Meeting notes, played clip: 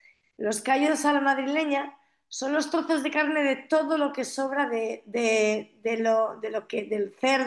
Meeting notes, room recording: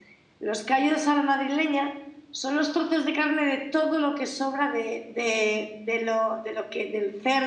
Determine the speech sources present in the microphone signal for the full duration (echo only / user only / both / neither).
echo only